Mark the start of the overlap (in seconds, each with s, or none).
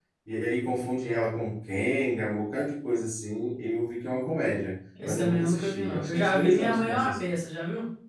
5.0 s